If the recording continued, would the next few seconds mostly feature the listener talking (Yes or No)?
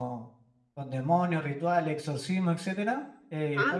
No